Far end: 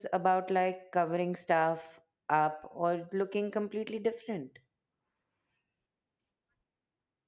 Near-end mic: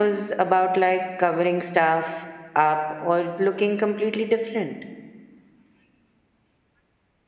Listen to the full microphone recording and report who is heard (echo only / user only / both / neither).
echo only